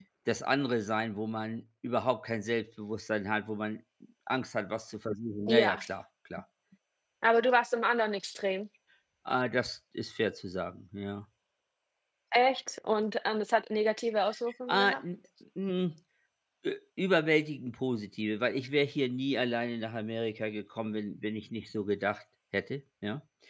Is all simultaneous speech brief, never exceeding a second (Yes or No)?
Yes